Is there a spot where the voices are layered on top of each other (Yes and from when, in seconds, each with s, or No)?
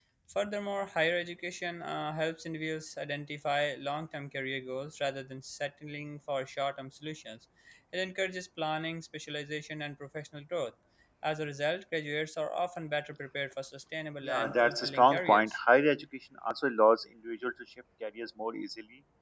Yes, from 14.2 s